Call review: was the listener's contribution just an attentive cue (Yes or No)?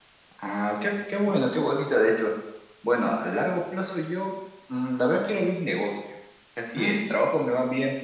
Yes